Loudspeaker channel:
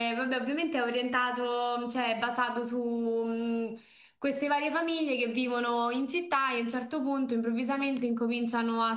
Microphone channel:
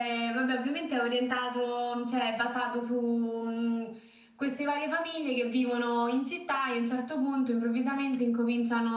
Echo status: present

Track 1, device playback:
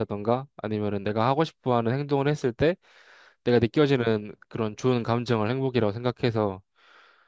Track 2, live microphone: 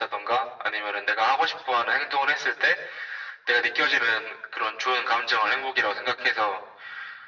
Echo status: present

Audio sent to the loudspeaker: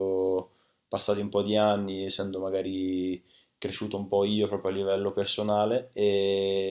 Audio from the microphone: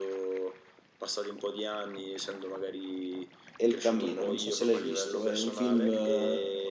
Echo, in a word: present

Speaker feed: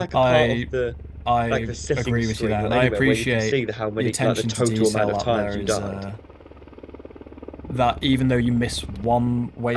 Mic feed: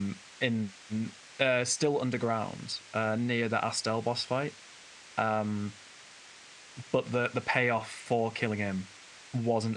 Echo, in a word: none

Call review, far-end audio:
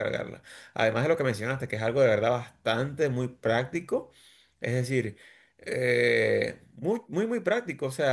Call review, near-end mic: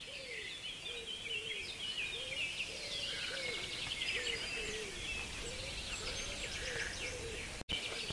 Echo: none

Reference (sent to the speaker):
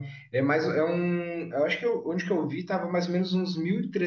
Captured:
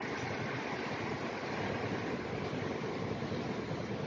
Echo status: none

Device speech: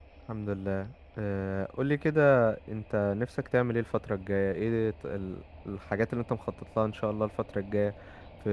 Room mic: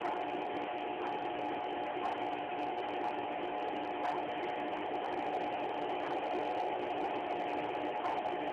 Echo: none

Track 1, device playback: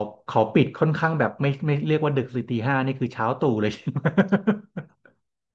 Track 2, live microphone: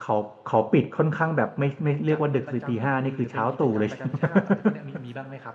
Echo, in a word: present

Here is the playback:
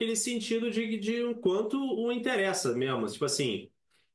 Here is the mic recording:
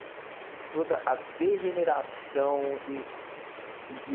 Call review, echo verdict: none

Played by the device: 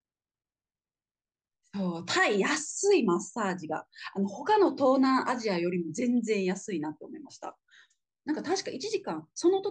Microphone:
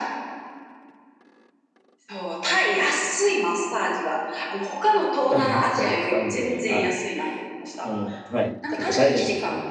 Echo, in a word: present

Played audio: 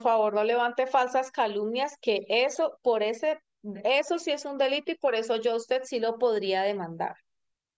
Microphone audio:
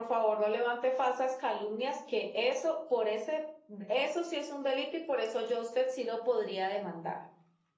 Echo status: present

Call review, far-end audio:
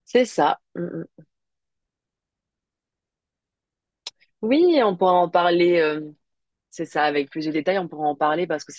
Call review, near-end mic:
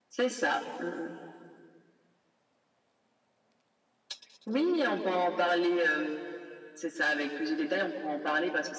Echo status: present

